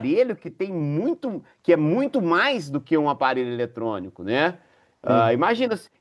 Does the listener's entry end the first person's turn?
No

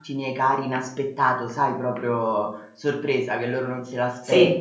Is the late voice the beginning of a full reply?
No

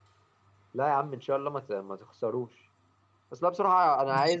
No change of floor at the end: Yes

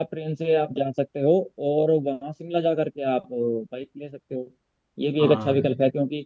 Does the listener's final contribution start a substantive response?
No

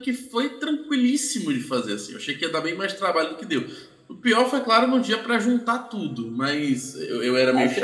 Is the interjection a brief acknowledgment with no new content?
No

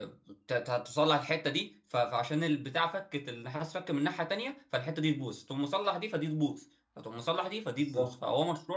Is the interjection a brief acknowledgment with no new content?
Yes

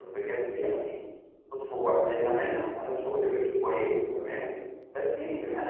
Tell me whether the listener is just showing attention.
Yes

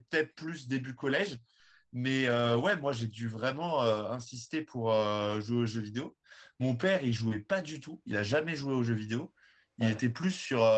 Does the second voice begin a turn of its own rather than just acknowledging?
No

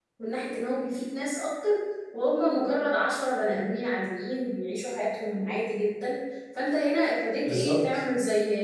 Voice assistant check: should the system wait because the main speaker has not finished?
Yes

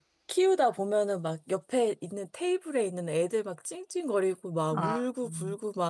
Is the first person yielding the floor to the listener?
No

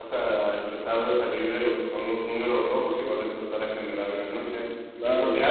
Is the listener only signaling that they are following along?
Yes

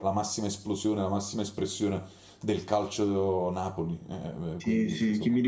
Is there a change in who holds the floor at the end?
Yes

